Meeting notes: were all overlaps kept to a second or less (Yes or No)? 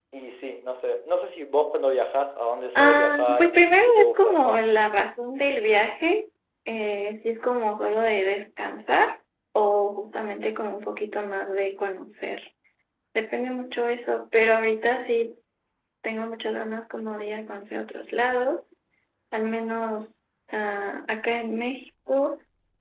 No